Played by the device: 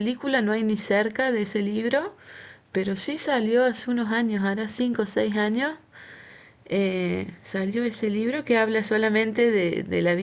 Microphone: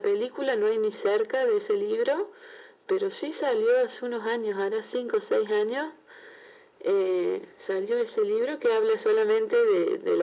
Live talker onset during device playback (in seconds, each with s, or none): none